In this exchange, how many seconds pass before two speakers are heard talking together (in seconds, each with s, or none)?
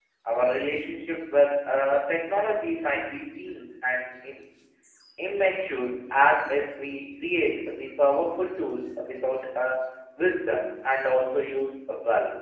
none